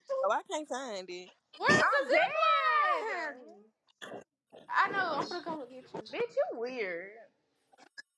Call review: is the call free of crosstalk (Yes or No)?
No